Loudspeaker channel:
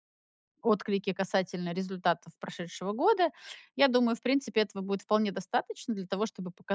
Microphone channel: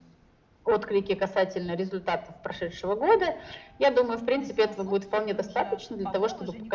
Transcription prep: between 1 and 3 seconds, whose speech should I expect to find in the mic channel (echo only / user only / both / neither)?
echo only